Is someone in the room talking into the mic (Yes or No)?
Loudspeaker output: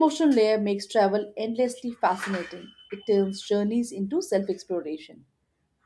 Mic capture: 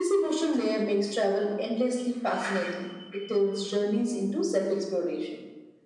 No